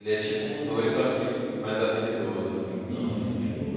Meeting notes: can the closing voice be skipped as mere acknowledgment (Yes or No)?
No